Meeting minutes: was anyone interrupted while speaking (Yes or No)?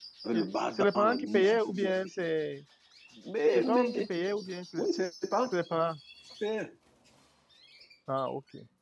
Yes